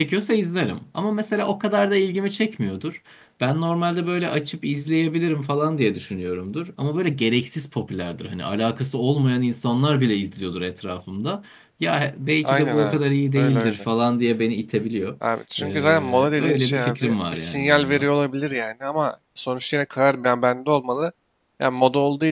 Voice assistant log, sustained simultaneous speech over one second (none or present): present